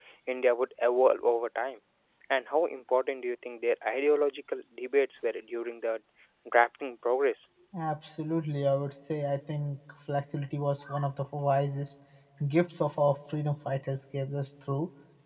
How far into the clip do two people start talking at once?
none

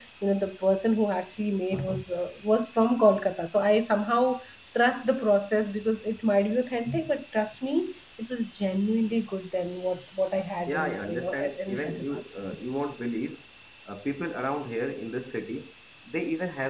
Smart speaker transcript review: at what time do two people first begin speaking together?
10.7 s

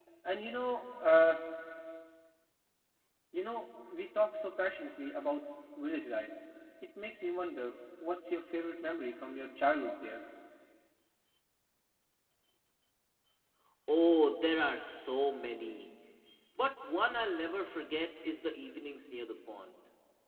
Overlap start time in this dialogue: none

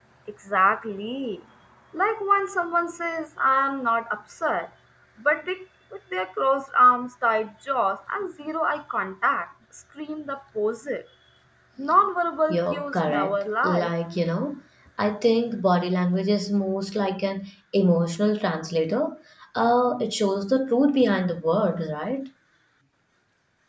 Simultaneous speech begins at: 12.5 s

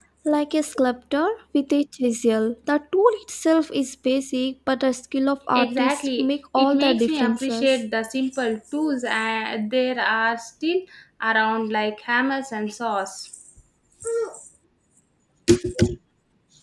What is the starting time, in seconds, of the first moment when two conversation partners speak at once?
5.5 s

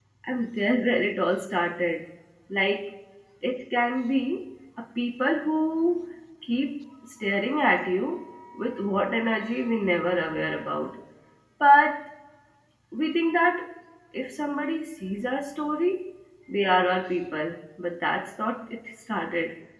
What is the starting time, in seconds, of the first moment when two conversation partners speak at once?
none

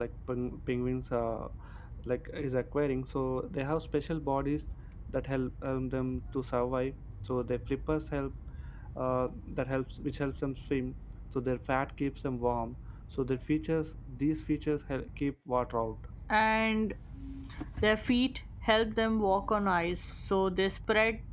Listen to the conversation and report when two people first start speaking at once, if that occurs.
none

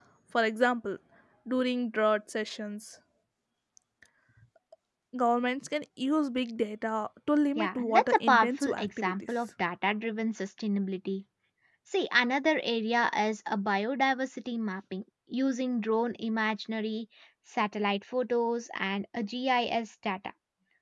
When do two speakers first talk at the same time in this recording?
7.5 s

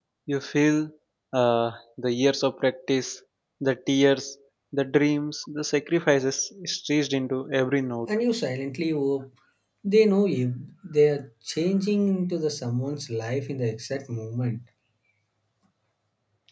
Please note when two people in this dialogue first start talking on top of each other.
none

